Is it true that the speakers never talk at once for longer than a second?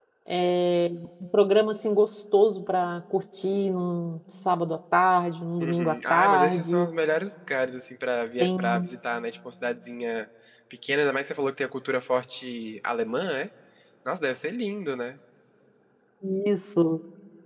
No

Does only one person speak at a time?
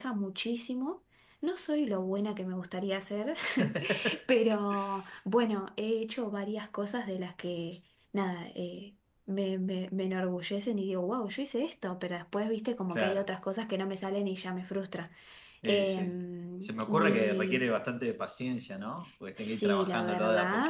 No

